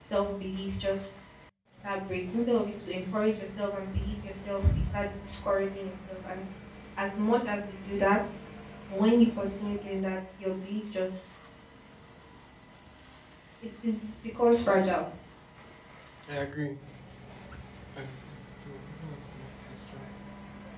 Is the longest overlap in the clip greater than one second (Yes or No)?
No